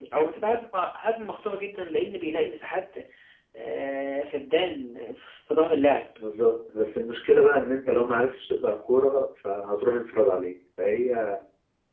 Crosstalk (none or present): none